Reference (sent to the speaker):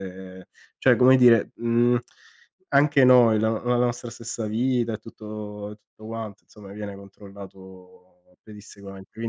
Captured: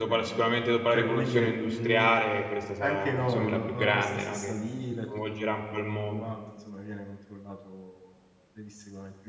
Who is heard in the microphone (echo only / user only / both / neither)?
both